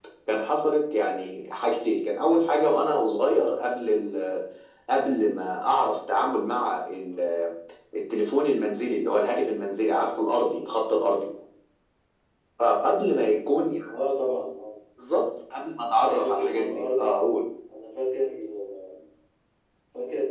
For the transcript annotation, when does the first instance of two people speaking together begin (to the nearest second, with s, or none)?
16 s